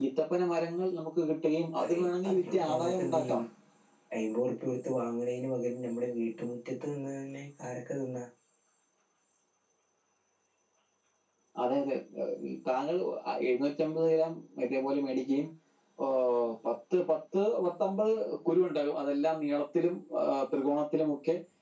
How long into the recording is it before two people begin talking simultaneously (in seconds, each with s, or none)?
1.8 s